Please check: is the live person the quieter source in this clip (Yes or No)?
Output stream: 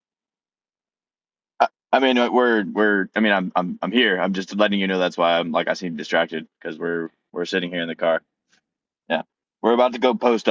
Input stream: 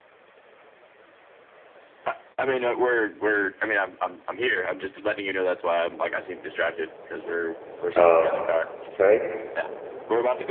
No